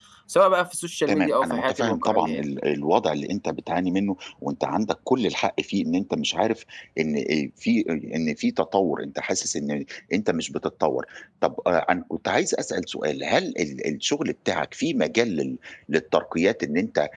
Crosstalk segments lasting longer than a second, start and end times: 1.1-2.4

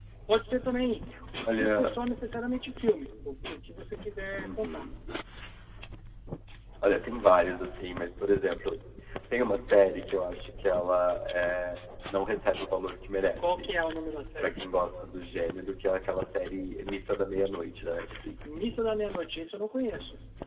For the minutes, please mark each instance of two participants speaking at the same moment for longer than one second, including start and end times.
none

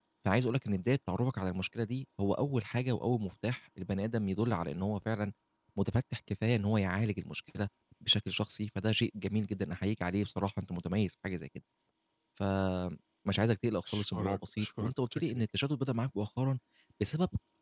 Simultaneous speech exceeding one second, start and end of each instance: 13.9-15.4

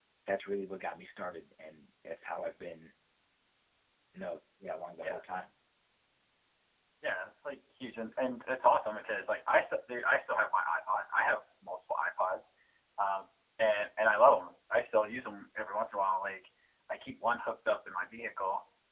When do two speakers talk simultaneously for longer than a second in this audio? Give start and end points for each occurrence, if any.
none

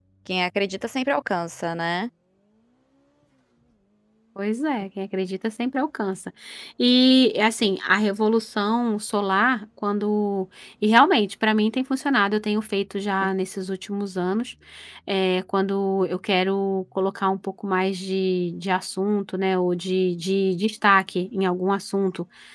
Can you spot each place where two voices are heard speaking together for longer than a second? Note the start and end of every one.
none

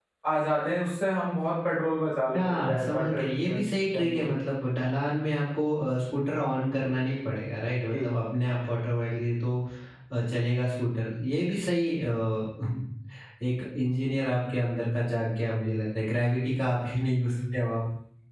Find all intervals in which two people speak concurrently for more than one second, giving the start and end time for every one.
2.3-3.6

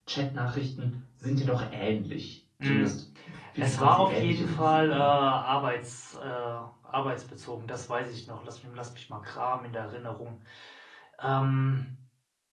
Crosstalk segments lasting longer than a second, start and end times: 3.6-5.1

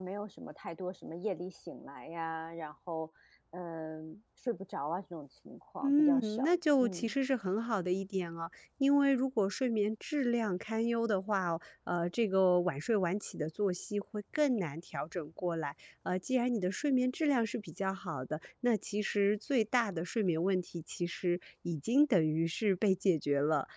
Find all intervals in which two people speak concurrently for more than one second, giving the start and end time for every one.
5.8-7.1

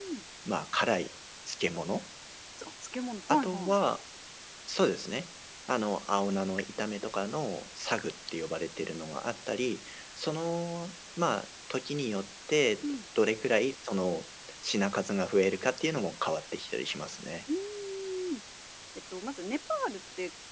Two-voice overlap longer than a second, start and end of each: none

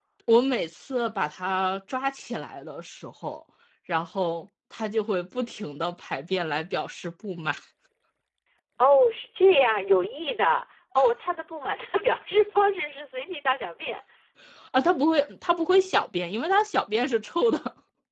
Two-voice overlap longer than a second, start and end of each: none

